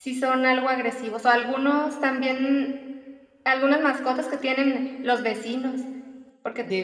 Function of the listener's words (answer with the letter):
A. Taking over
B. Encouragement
B